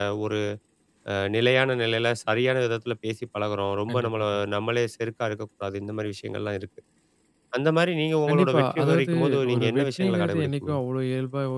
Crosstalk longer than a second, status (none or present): present